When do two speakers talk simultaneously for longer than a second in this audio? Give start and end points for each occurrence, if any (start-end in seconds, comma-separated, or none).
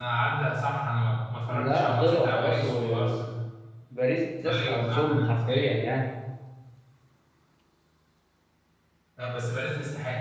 1.5-3.3, 4.6-5.8